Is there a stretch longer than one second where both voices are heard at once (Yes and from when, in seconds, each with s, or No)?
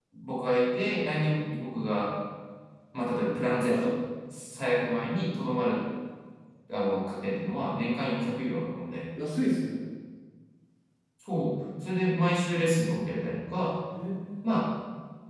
No